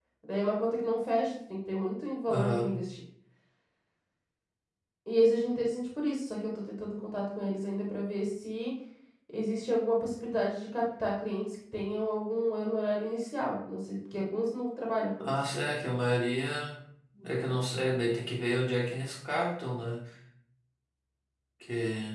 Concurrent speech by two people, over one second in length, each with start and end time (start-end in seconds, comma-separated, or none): none